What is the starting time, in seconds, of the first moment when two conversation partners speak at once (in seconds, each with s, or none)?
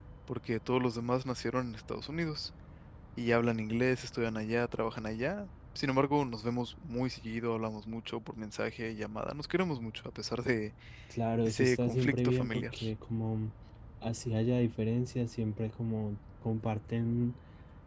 11.4 s